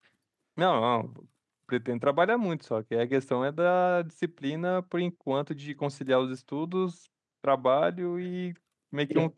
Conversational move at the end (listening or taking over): listening